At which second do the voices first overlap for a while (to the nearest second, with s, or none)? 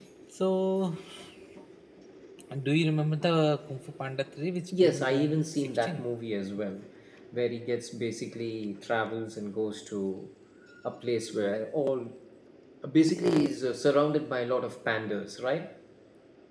5 s